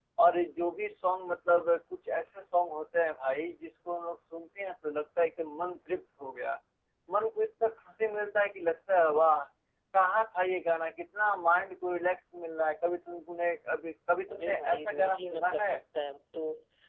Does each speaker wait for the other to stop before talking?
No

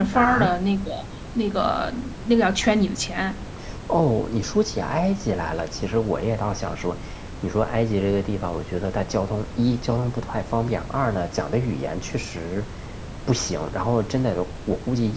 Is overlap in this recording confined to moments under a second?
Yes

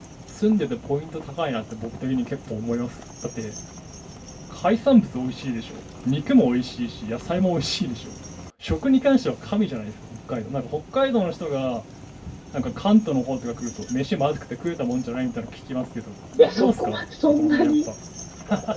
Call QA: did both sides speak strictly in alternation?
No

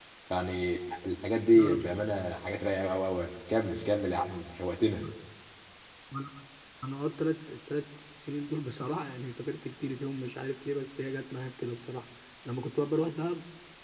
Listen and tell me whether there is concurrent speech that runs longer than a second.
No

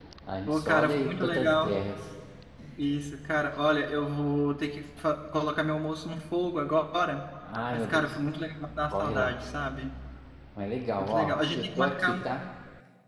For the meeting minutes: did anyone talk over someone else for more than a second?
Yes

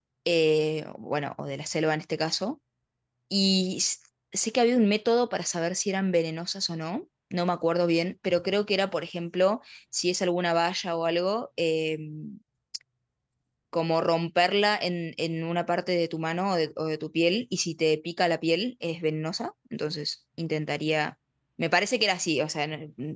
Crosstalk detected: No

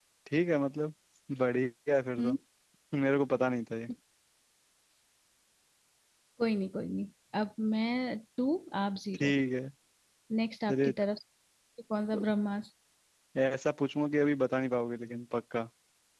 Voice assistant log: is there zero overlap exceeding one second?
Yes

